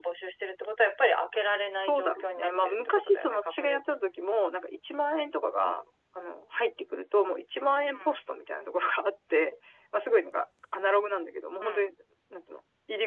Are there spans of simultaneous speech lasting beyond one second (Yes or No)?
Yes